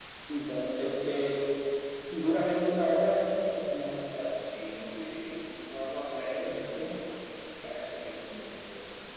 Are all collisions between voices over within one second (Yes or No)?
Yes